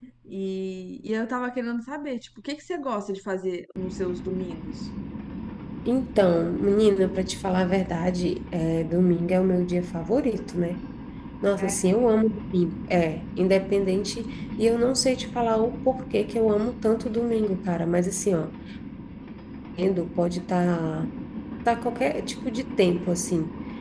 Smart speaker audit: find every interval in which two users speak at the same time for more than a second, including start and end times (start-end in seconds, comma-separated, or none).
none